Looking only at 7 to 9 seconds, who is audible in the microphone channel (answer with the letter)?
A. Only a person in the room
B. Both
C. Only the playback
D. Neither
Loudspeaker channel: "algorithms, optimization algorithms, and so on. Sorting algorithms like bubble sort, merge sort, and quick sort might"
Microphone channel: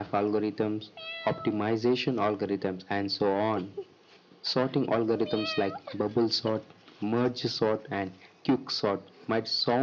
C